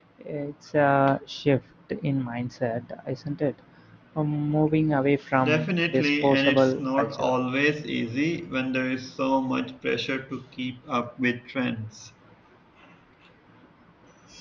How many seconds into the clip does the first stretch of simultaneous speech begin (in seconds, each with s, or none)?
5.4 s